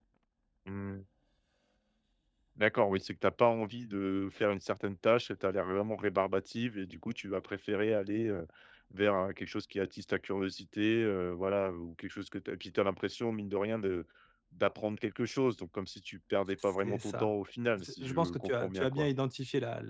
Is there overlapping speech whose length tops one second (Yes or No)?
Yes